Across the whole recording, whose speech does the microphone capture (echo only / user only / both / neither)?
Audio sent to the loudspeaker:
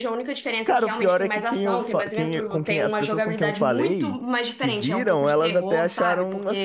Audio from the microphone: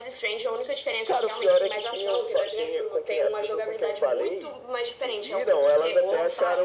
echo only